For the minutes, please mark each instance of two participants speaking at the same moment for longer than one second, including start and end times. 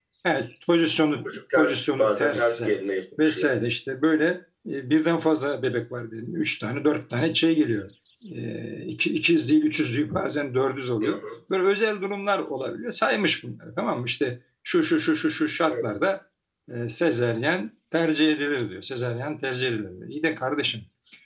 1.2-2.8

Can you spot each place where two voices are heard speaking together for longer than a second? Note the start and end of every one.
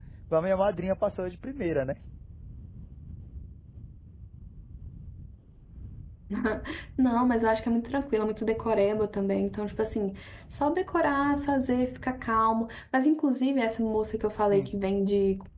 none

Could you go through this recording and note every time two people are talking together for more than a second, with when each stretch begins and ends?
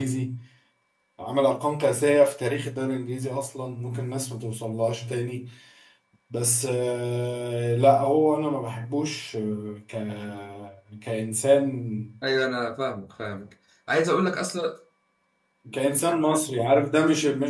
none

